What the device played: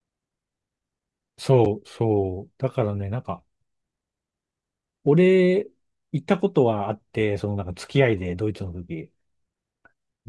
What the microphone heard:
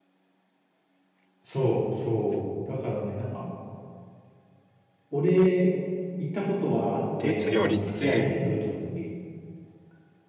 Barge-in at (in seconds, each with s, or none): 7.2 s